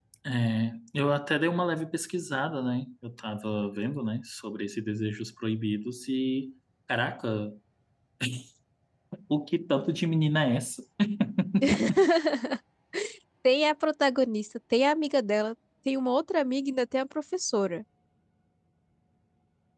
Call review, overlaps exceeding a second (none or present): none